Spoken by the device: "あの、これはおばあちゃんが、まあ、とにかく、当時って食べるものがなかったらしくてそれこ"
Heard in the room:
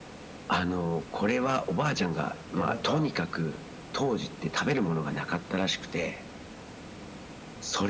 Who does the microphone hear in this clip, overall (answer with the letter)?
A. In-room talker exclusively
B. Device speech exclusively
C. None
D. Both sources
D